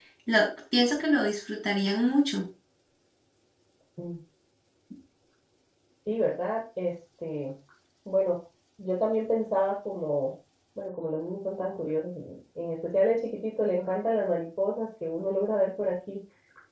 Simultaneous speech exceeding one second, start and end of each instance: none

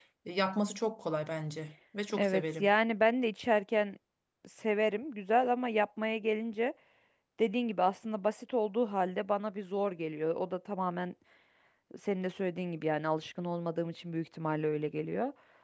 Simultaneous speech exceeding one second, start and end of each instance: none

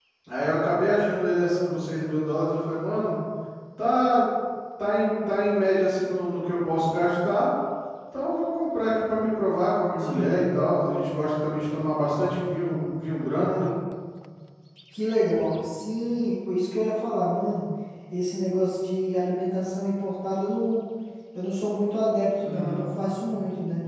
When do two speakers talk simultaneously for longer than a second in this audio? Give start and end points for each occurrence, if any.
none

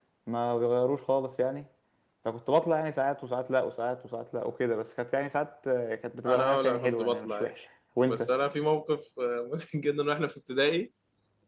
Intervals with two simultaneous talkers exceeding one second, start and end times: 6.2-7.5

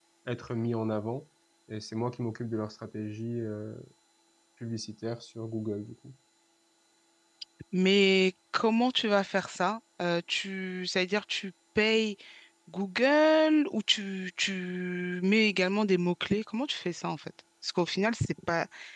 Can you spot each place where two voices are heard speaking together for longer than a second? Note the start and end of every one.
none

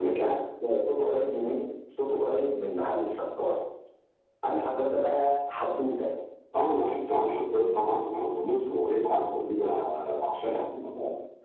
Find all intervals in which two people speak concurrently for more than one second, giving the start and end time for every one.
none

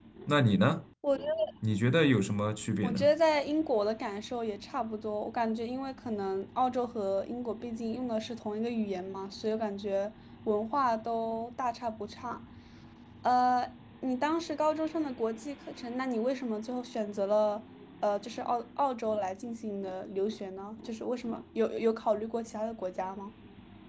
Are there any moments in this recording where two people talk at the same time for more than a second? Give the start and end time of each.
none

